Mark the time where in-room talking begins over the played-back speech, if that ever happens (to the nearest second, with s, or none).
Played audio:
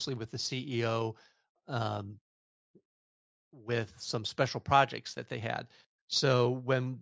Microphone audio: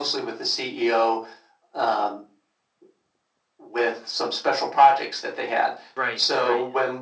6 s